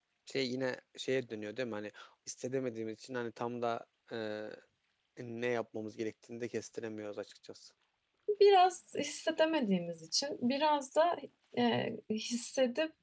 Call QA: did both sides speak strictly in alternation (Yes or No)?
Yes